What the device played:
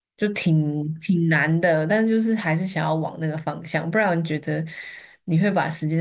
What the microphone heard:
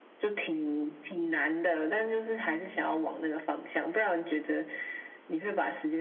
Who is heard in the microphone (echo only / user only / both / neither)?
echo only